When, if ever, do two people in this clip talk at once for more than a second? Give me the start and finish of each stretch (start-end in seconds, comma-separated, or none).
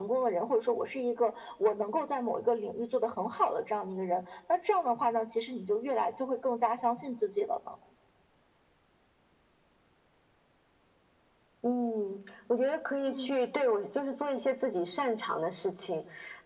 none